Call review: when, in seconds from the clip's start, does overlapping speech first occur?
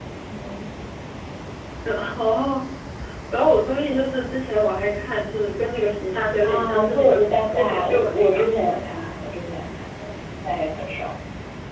6.4 s

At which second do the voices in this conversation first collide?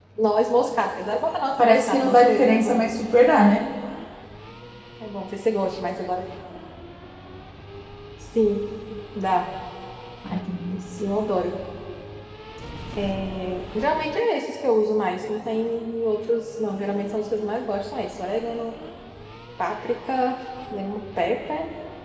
1.6 s

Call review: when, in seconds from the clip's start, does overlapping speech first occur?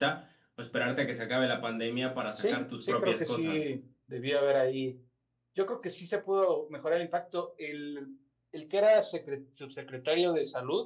2.3 s

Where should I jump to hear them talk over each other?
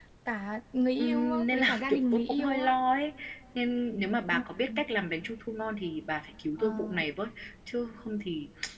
1.0 s

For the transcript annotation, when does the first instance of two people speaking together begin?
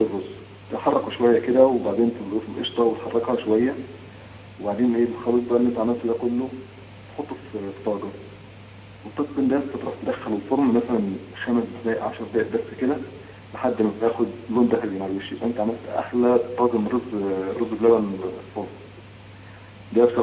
none

